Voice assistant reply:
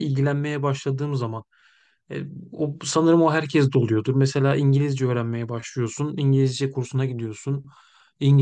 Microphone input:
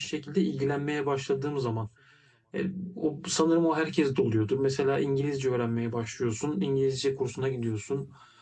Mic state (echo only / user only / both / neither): echo only